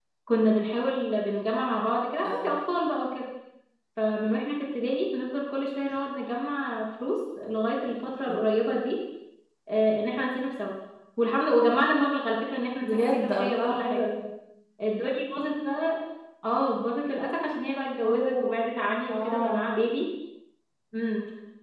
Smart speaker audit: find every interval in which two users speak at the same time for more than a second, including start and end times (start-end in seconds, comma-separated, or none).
12.8-14.0